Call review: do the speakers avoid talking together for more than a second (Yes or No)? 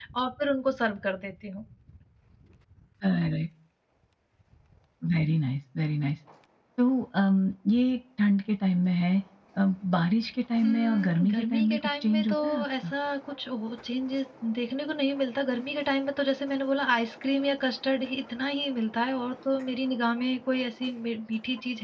No